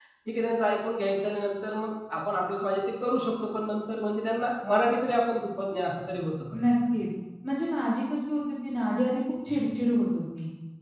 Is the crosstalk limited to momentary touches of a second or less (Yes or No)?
Yes